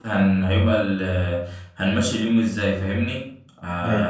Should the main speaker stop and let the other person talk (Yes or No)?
No